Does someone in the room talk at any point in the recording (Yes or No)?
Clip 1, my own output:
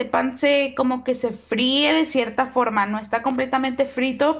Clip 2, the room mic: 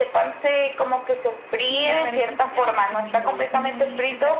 Yes